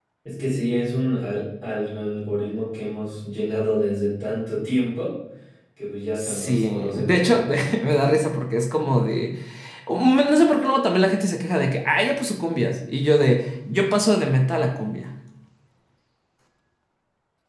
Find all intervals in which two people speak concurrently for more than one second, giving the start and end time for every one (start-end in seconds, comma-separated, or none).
6.2-7.9